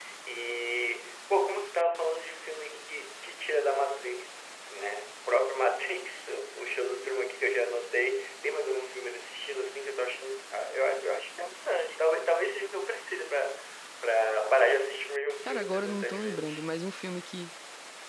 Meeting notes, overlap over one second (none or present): present